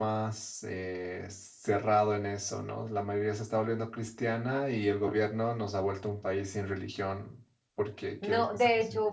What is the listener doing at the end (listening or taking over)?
taking over